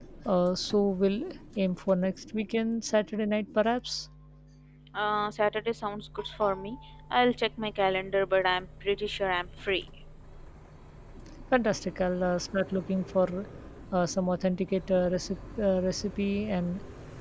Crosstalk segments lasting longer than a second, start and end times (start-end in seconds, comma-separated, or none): none